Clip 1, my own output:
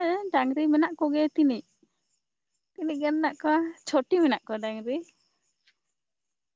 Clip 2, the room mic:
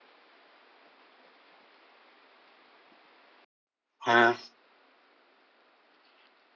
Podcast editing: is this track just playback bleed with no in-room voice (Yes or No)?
No